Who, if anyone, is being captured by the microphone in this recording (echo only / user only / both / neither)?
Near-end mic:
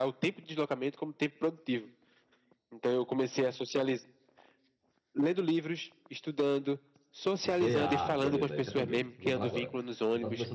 both